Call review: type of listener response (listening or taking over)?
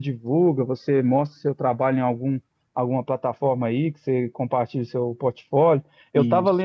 listening